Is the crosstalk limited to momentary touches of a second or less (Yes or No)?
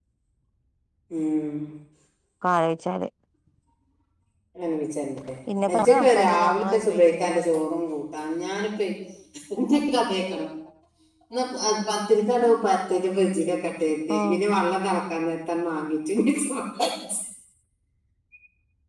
No